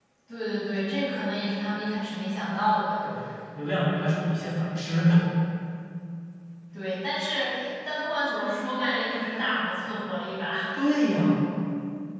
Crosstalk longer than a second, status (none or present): none